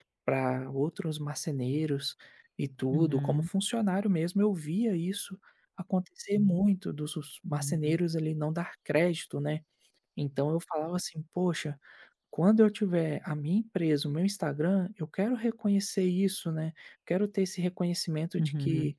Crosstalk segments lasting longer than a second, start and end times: none

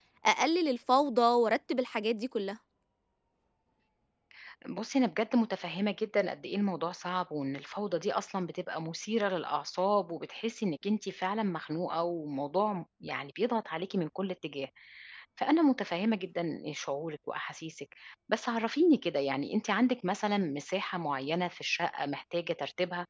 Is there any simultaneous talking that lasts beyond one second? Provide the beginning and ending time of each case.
none

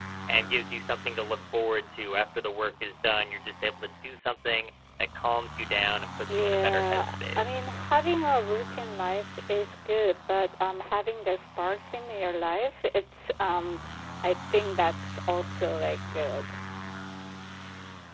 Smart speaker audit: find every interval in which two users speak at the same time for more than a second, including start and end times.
6.3-7.7

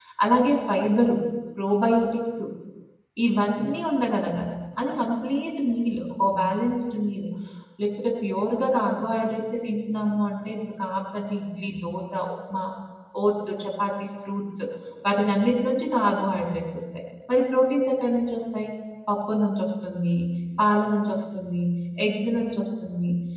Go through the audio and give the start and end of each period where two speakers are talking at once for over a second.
none

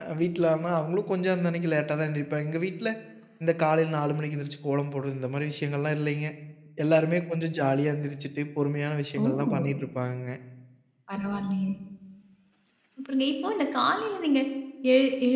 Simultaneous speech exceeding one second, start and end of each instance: none

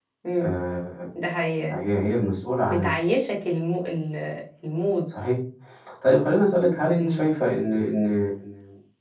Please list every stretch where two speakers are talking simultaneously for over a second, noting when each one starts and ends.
none

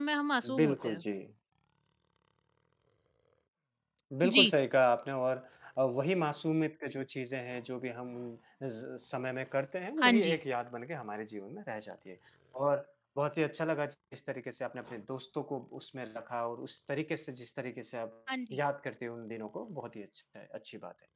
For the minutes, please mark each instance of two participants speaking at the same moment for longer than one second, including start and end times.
none

